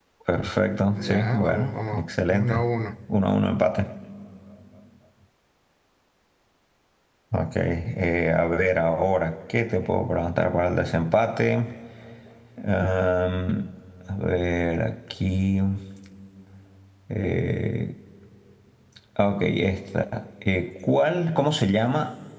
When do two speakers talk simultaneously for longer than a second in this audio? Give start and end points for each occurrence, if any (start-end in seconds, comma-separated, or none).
0.9-2.6